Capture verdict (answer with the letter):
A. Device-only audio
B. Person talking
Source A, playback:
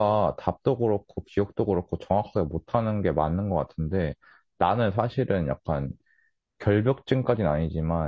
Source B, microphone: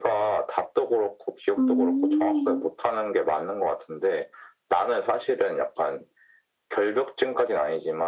B